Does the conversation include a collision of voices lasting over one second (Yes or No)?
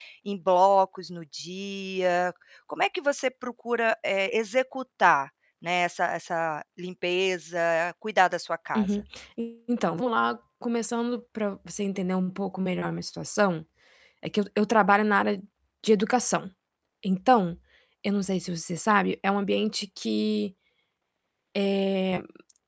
No